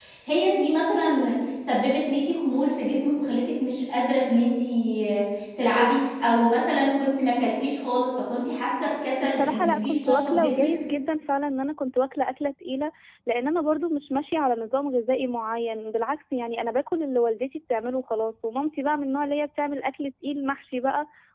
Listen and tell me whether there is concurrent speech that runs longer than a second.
Yes, from 9.2 s

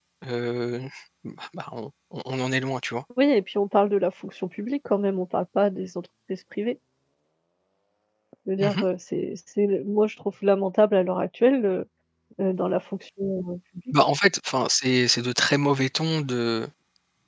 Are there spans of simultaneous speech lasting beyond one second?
No

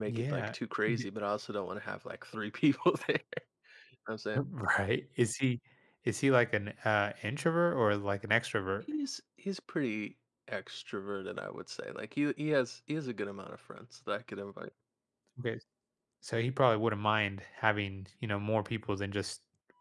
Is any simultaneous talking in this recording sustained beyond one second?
No

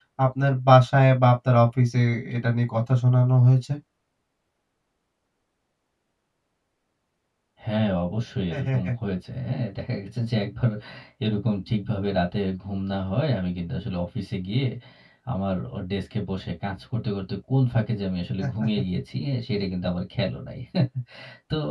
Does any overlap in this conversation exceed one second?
No

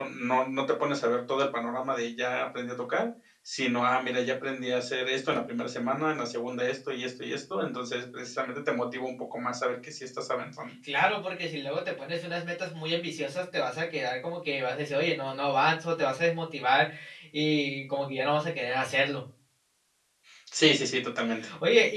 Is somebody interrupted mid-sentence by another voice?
No

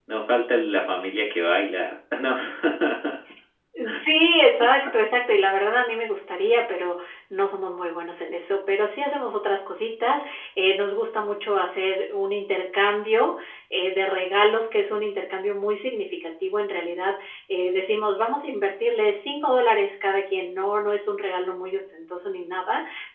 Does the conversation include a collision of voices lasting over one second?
No

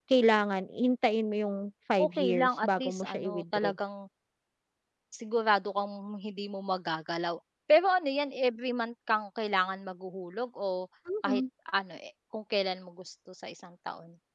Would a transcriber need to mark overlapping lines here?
Yes, from 2.0 s

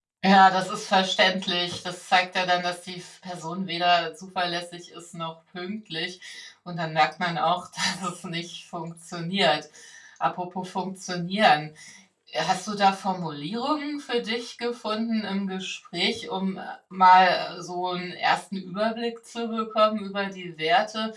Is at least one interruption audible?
No

